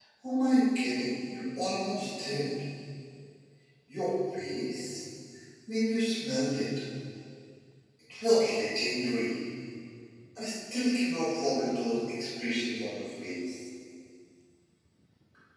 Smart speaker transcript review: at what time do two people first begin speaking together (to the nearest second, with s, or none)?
none